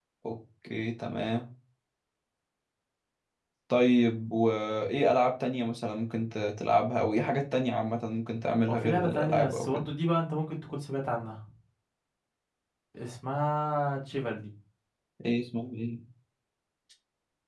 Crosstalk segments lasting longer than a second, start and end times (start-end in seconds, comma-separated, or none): 8.7-9.9